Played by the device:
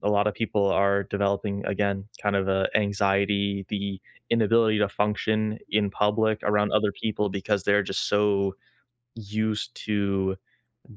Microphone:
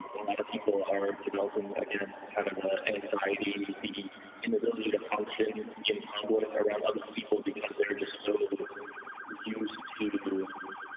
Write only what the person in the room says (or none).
none